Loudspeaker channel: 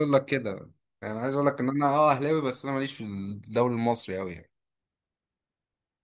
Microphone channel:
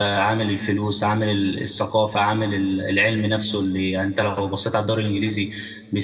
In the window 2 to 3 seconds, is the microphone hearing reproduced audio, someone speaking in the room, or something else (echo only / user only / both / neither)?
user only